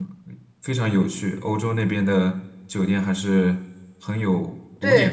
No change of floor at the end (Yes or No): No